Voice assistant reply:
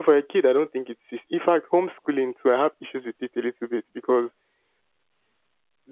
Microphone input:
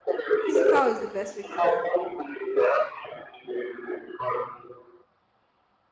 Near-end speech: present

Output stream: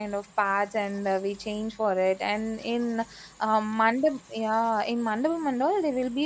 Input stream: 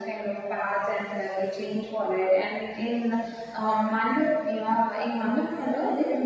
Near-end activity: none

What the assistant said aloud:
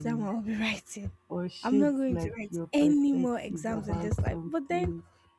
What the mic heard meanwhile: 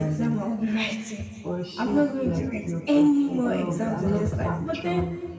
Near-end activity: present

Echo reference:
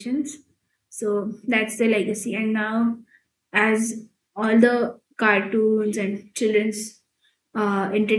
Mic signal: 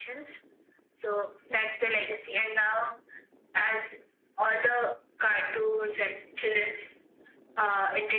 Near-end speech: none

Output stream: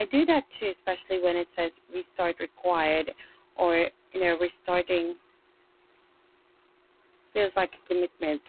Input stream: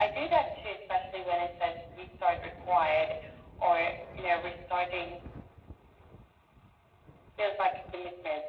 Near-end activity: none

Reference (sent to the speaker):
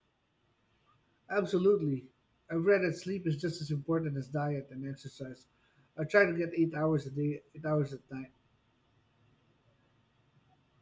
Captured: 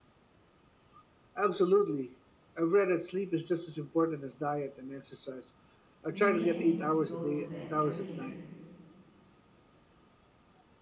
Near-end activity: present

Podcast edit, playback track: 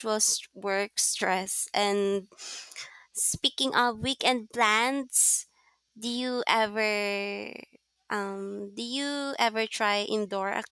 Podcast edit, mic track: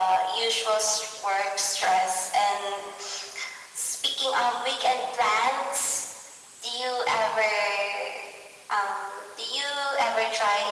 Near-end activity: none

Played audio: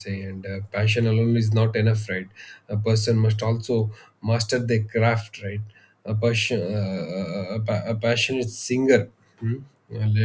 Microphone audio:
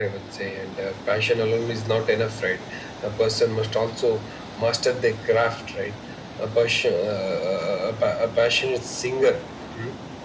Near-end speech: none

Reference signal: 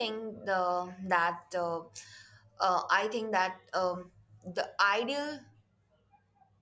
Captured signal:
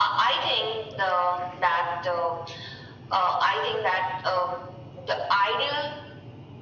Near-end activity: none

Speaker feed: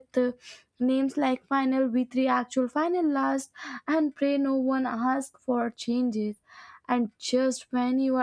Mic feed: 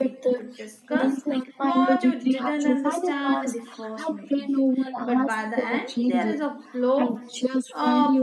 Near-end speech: present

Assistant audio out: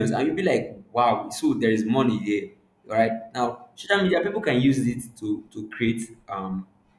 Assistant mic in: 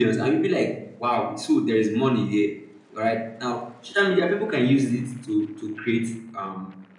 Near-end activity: none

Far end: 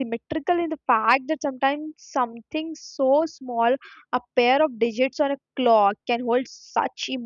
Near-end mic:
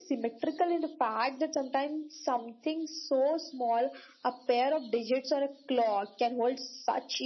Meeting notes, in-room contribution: none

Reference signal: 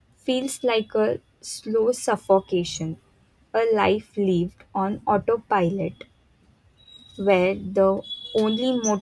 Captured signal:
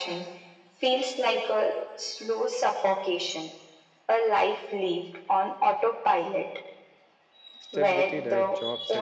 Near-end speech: present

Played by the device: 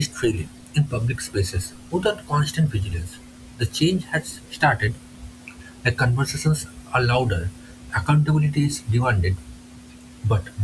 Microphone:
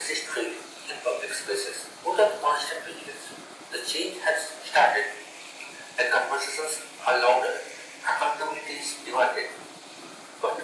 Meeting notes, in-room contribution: none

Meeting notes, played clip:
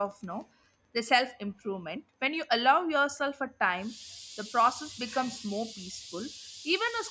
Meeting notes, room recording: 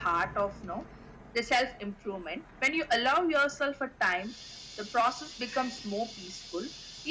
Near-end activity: none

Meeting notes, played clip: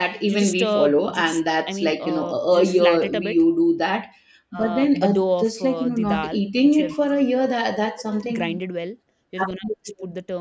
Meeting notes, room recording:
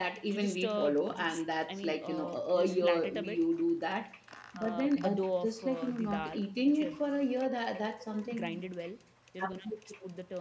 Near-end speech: none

